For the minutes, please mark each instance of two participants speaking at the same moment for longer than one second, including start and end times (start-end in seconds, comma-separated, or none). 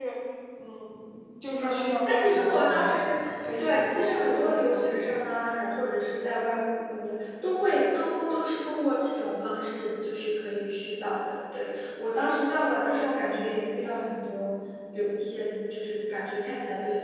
1.6-3.1, 3.6-5.2